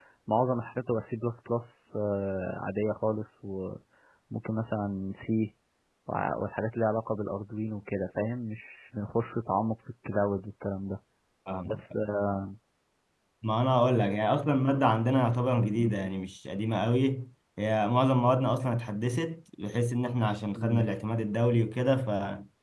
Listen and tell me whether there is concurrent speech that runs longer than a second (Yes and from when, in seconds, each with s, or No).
No